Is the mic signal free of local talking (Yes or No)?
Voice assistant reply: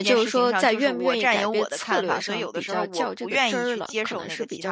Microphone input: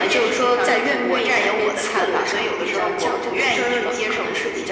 Yes